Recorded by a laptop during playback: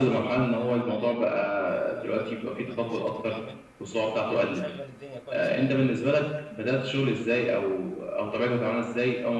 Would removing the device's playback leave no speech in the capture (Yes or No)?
No